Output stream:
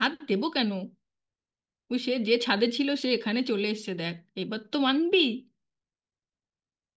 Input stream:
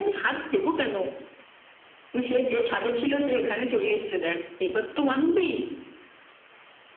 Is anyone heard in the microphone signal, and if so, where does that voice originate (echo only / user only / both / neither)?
echo only